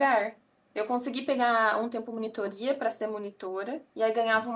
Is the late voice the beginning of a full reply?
No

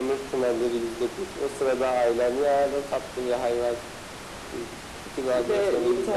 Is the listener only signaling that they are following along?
No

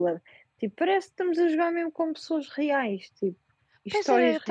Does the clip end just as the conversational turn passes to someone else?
Yes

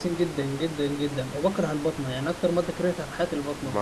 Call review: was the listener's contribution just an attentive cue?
No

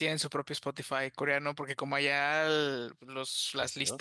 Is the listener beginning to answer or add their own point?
No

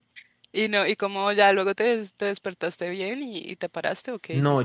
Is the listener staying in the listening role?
No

